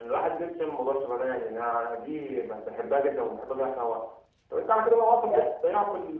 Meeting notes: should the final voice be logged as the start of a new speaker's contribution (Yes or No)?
No